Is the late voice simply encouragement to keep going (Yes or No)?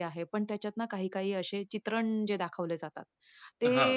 Yes